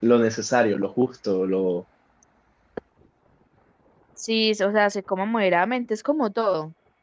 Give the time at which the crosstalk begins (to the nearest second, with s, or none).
none